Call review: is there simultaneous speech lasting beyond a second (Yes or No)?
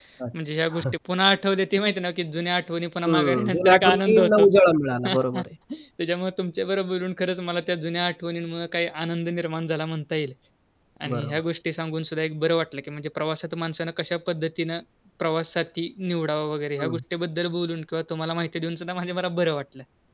Yes